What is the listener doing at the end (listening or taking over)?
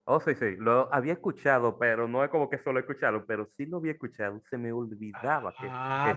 taking over